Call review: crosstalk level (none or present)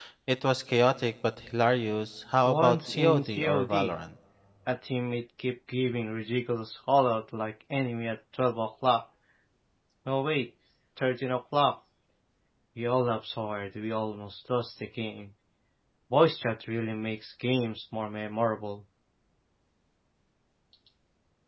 present